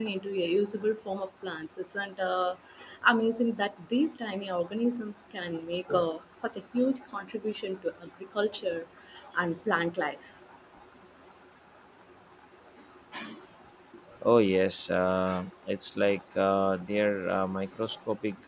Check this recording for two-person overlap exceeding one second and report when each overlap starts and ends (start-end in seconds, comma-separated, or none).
none